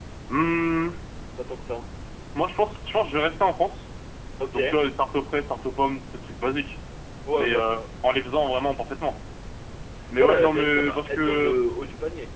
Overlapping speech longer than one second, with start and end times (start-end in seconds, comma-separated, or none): 10.2-11.5